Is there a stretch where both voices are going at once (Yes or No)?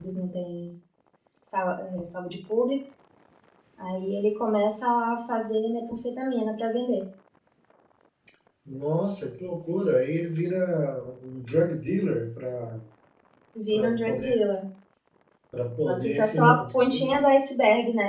Yes